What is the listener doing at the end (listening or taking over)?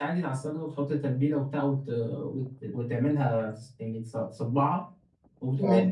listening